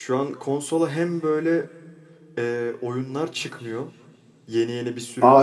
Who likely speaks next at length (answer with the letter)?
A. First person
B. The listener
B